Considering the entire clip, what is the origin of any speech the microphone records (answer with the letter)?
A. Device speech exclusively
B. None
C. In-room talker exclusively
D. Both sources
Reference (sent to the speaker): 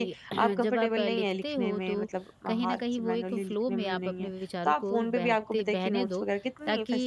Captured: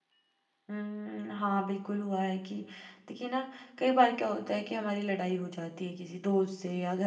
C